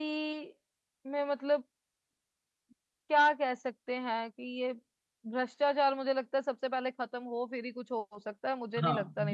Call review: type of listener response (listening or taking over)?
taking over